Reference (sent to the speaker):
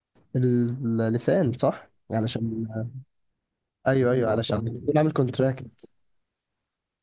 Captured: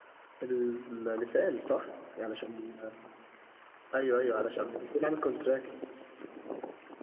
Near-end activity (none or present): none